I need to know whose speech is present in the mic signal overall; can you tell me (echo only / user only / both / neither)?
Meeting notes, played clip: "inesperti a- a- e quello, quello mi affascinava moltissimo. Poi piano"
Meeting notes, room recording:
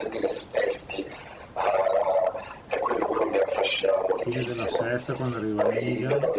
both